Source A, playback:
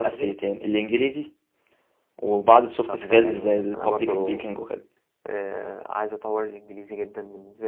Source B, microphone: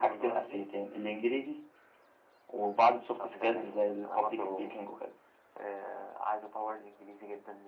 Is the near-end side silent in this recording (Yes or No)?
Yes